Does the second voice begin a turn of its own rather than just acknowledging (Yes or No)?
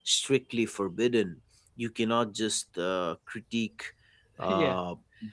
No